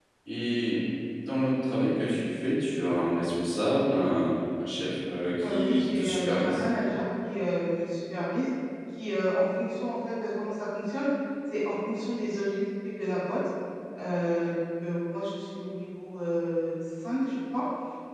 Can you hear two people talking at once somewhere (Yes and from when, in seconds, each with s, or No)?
Yes, from 5.4 s